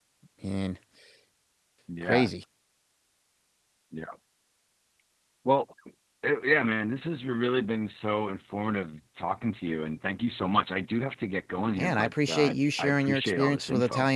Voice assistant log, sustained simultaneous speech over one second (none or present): present